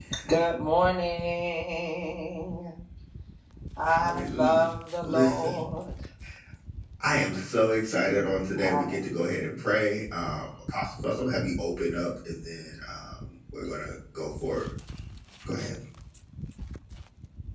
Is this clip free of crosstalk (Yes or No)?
No